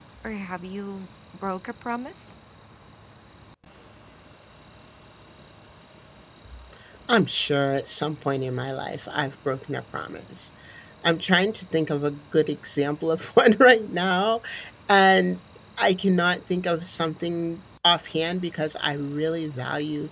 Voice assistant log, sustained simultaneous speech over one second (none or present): none